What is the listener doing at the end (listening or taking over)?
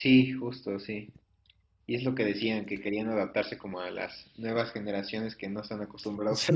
taking over